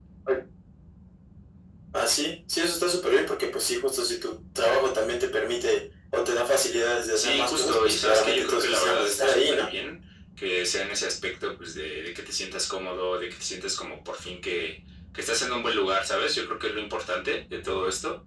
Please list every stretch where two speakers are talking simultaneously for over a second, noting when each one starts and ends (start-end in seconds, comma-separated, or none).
7.1-9.7